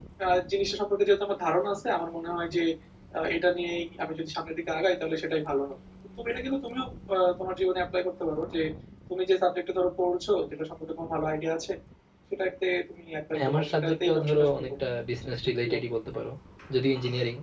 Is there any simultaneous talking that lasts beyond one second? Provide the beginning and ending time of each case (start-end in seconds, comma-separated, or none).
13.3-14.7